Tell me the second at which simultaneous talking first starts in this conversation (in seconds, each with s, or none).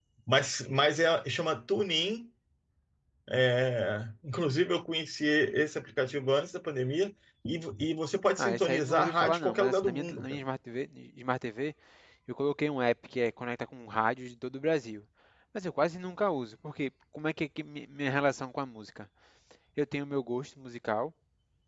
8.4 s